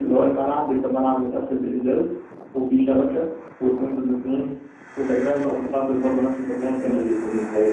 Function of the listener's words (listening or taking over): taking over